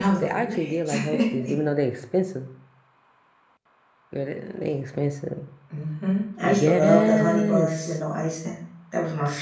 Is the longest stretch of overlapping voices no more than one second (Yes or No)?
No